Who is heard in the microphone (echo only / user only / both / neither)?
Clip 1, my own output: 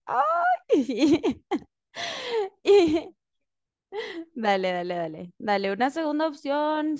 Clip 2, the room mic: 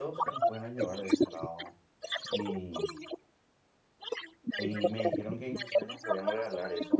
both